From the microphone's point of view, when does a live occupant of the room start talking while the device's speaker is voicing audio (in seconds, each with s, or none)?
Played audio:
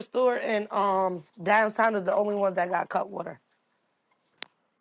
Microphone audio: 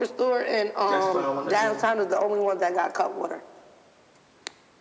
0.9 s